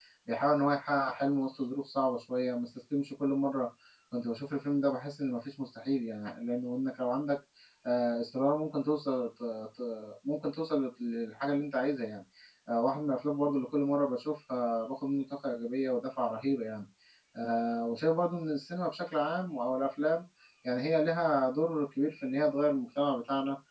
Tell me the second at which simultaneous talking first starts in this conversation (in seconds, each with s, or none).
none